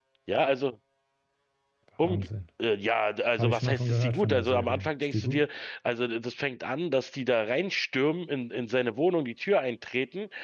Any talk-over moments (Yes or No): Yes